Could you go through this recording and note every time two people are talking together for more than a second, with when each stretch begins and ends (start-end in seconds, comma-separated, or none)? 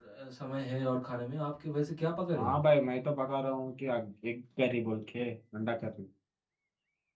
none